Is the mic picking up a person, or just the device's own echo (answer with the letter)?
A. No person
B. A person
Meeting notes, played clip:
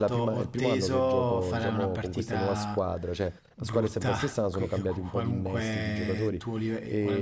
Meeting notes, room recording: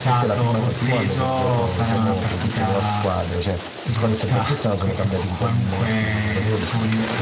A